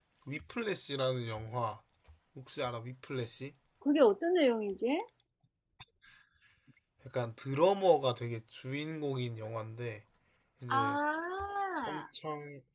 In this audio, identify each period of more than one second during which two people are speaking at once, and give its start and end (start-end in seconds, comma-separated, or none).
none